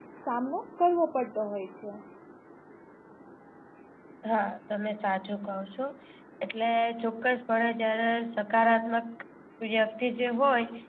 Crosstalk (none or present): none